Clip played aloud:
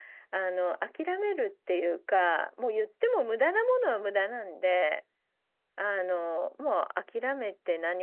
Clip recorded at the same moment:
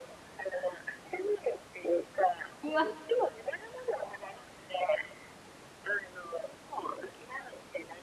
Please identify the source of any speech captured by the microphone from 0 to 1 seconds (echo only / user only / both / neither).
echo only